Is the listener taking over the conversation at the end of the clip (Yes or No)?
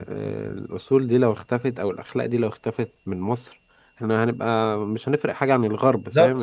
Yes